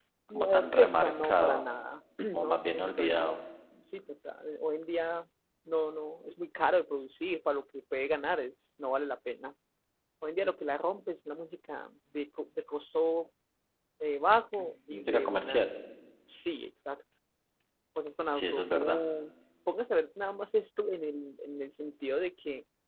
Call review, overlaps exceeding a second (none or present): present